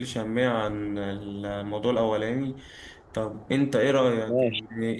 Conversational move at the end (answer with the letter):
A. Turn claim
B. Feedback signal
B